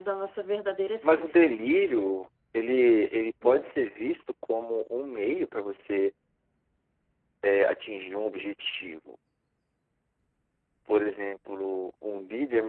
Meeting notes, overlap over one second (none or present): none